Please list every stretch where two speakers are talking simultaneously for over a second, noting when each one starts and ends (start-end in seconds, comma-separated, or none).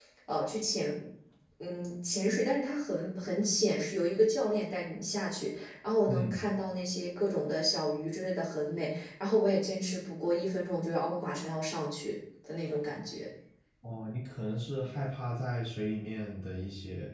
none